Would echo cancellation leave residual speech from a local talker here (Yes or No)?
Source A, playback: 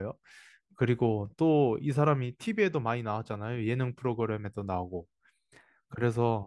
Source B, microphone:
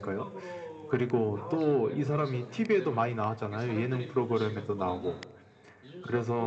Yes